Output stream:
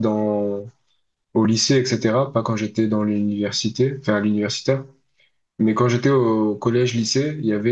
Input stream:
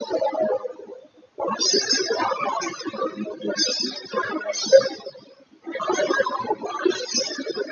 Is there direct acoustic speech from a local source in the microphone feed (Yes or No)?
No